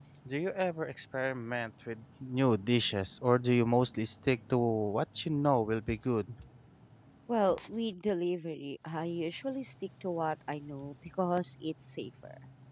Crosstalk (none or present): none